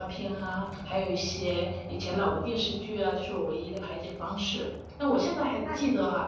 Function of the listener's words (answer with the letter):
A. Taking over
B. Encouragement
B